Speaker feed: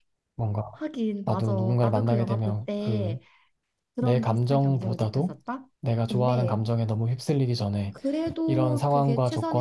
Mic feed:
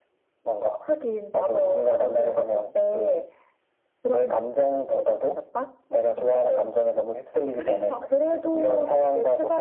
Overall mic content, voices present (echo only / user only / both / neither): both